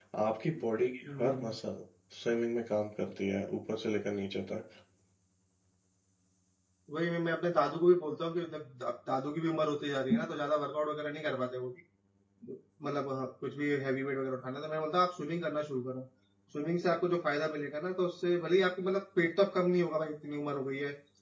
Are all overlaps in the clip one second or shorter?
Yes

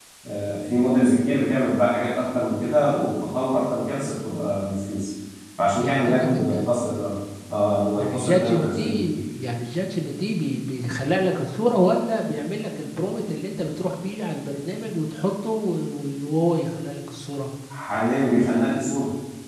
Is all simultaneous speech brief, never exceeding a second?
No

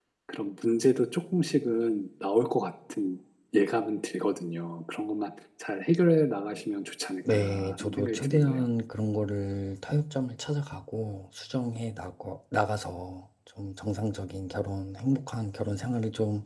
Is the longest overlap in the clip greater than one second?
Yes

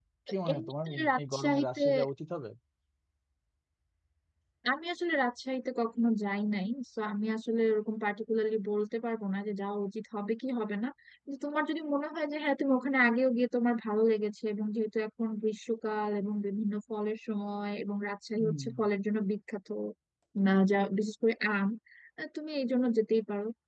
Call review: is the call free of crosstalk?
No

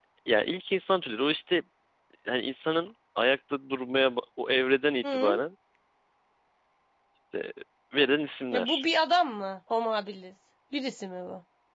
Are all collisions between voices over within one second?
Yes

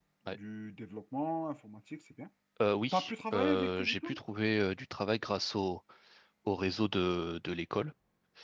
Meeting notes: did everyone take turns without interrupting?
No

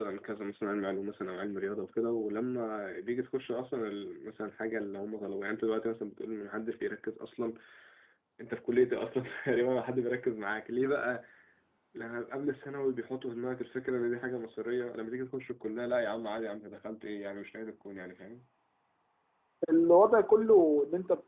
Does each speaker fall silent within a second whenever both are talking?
Yes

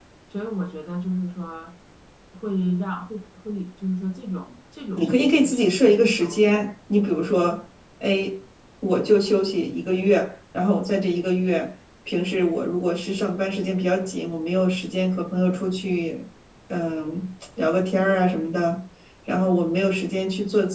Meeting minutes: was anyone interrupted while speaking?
Yes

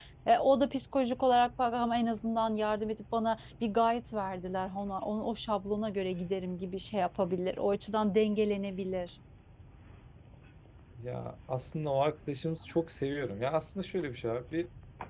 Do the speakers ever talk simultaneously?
No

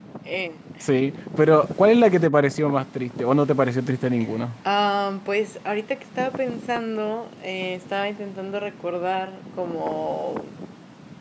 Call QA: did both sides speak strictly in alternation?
Yes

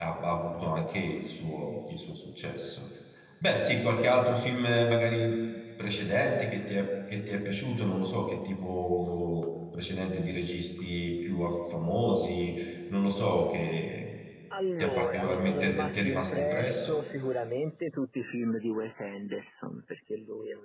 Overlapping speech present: Yes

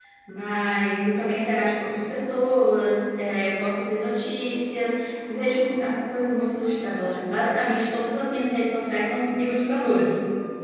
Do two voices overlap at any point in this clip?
No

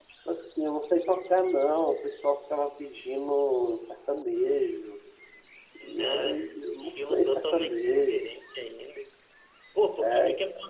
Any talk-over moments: Yes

